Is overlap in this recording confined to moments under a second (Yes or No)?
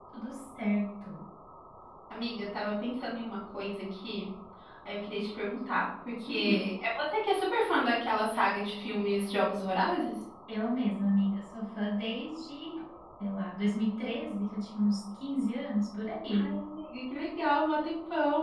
Yes